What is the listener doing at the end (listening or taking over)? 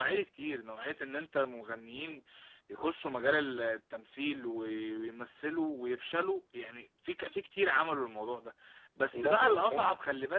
listening